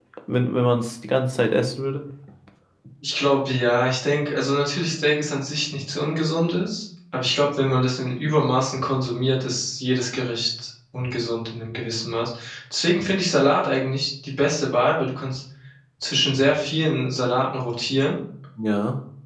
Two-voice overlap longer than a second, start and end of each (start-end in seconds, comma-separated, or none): none